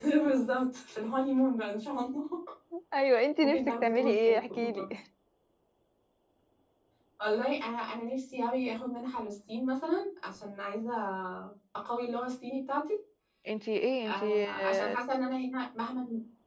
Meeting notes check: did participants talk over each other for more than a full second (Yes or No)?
Yes